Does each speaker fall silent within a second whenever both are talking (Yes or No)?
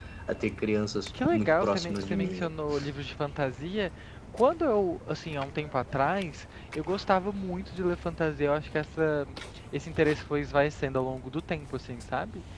No